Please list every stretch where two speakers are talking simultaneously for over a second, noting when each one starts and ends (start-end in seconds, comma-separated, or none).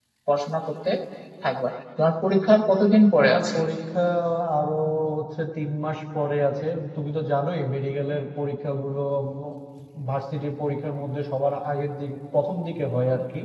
none